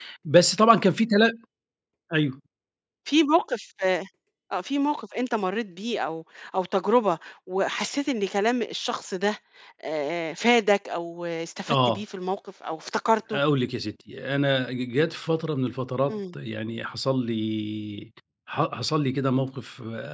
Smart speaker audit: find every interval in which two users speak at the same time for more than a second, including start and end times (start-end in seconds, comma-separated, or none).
none